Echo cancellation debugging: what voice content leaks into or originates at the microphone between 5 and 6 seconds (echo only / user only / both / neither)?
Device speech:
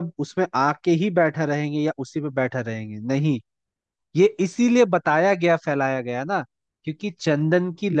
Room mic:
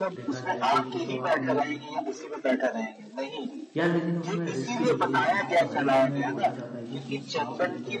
both